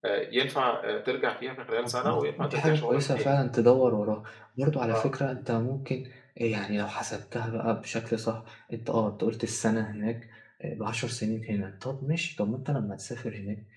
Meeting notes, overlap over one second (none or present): present